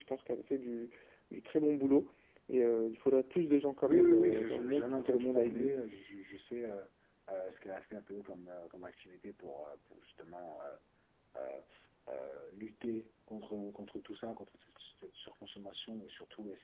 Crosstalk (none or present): present